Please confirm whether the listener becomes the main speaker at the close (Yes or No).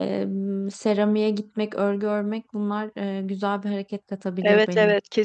Yes